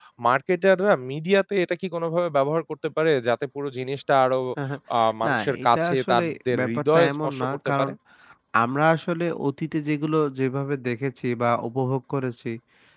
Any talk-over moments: Yes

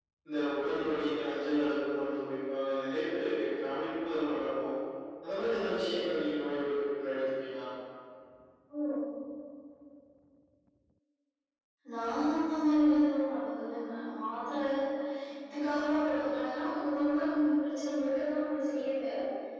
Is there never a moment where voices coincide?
Yes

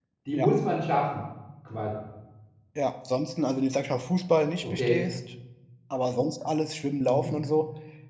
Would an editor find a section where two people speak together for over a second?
No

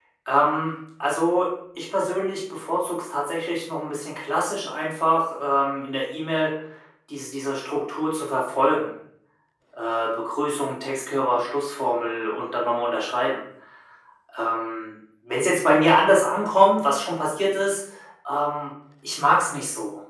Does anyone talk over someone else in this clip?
No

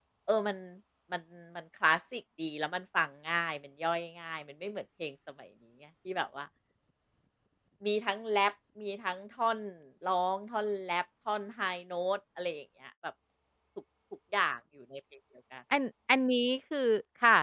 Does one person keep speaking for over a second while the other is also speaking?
No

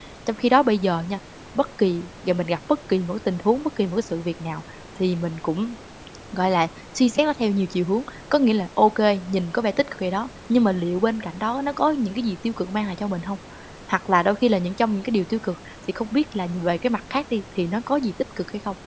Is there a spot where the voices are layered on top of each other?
No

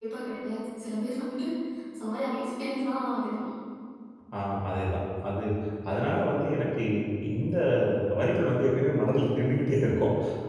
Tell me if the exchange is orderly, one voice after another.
Yes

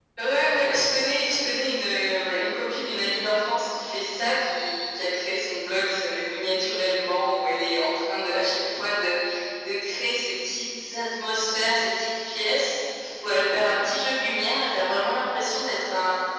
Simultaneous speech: No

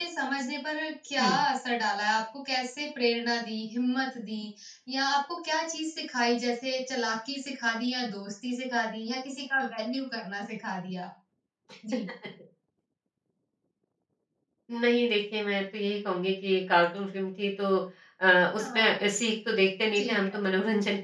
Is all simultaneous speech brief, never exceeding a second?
Yes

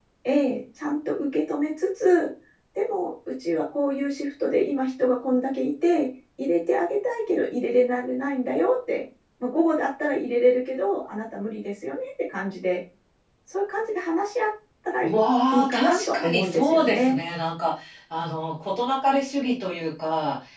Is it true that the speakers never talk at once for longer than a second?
No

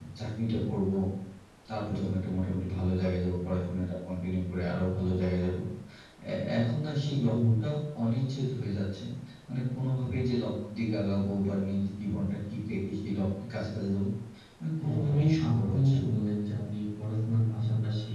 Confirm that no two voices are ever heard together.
No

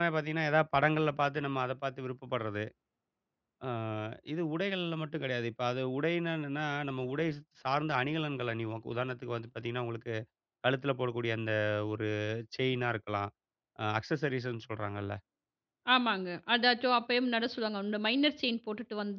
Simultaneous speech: No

